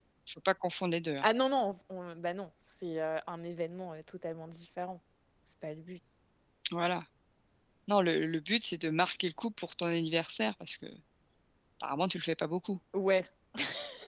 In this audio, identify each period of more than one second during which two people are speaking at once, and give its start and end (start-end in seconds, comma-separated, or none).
none